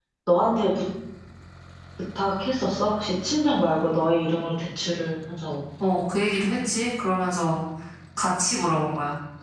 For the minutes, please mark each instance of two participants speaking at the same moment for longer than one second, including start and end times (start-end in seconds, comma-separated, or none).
none